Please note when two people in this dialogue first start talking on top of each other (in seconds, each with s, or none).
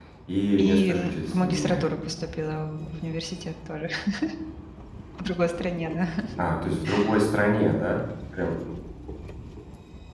0.6 s